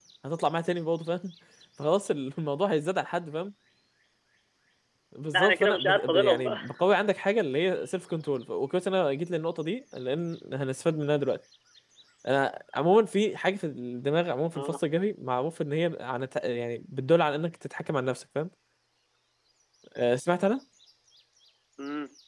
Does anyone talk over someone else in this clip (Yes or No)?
Yes